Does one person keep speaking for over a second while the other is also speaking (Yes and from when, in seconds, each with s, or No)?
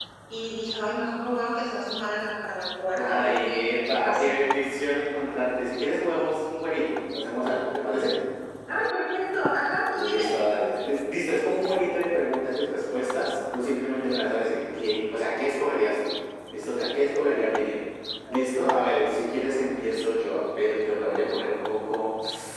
Yes, from 2.9 s